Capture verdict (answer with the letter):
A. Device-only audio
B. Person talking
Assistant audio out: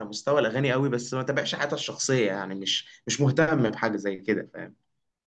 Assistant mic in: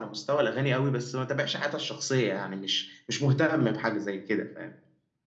A